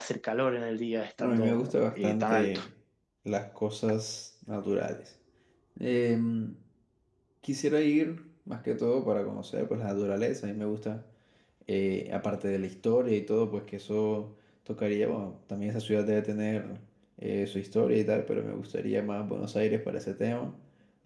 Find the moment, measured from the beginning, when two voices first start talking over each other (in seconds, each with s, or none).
1.2 s